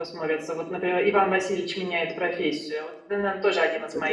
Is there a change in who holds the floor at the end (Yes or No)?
Yes